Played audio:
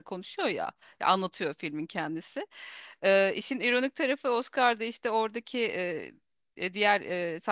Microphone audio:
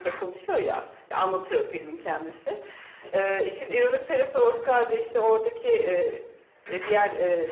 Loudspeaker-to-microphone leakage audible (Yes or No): Yes